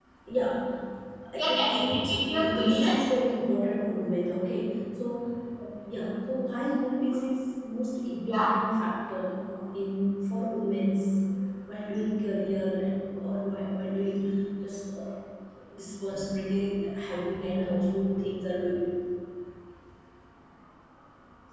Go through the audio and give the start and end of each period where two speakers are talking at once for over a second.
1.4-2.9

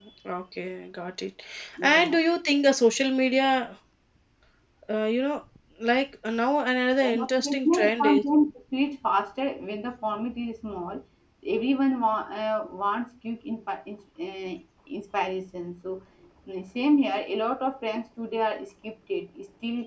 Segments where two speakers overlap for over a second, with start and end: 7.0-8.2

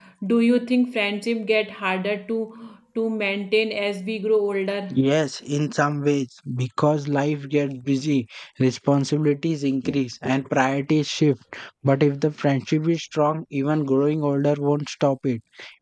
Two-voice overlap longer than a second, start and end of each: none

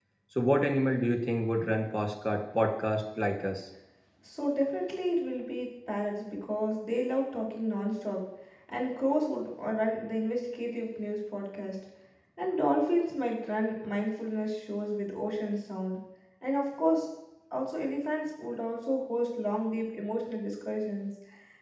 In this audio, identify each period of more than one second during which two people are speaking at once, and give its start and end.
none

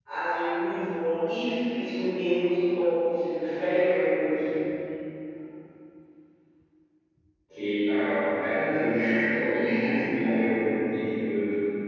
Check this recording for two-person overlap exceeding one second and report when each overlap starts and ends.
none

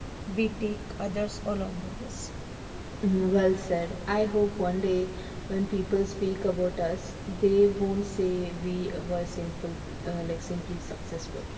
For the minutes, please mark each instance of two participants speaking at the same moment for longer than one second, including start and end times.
none

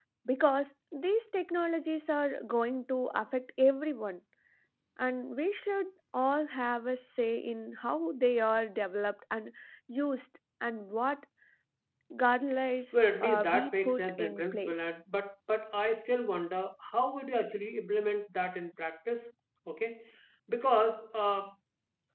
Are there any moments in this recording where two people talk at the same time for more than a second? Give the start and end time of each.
12.9-14.8

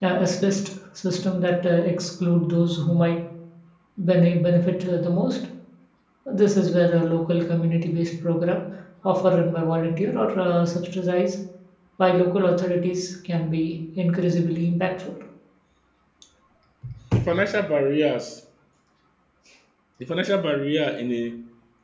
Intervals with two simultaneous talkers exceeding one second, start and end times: none

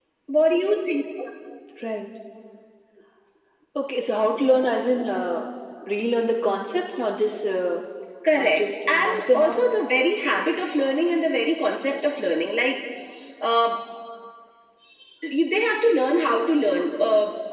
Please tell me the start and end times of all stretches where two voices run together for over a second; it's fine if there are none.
8.3-9.6

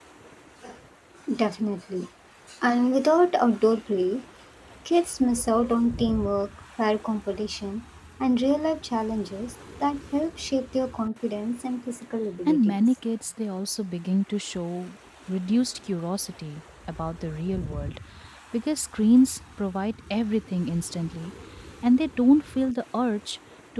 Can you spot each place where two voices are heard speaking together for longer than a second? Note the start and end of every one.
none

